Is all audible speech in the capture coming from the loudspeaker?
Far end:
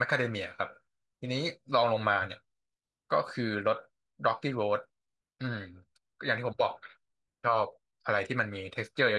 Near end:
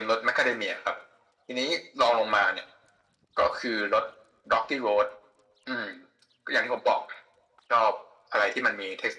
Yes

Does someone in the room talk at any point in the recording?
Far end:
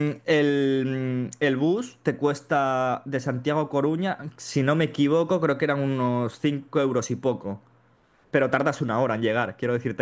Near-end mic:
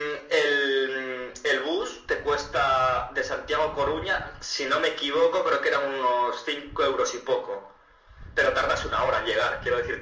No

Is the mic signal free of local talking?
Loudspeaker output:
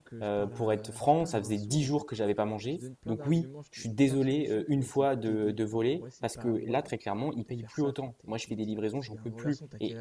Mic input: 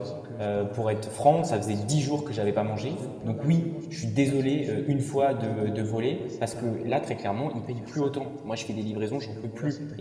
Yes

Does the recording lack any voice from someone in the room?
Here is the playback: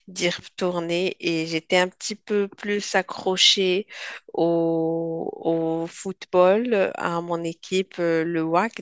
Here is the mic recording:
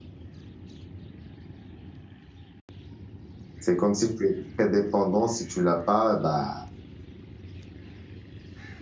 No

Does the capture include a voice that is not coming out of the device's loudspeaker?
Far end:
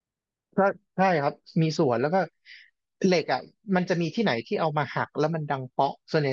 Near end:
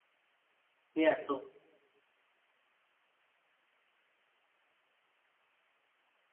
Yes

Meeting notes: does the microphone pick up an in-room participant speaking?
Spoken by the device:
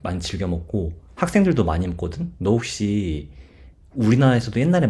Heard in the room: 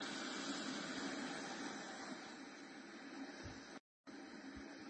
No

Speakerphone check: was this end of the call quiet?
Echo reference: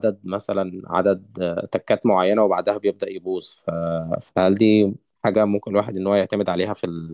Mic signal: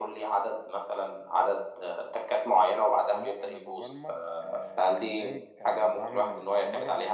No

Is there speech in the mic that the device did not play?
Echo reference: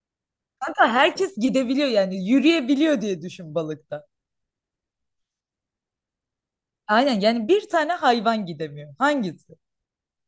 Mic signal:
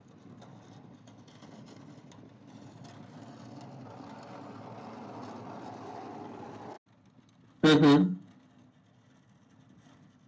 Yes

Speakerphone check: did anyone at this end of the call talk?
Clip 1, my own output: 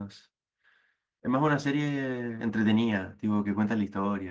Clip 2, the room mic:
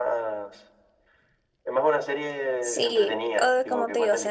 Yes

